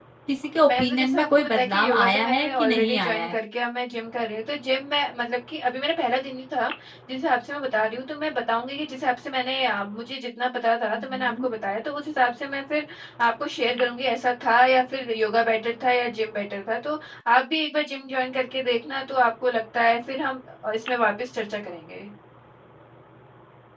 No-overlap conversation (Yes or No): No